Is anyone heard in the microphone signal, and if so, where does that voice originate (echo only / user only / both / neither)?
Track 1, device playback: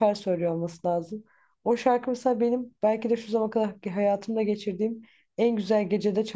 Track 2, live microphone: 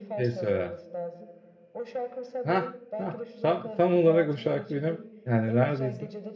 both